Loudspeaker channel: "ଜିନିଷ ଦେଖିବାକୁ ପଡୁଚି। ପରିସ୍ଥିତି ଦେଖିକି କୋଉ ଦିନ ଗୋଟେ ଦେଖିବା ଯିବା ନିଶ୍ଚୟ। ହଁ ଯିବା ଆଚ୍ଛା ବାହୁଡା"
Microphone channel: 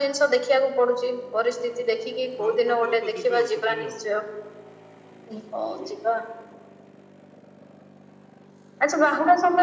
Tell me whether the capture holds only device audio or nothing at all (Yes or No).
No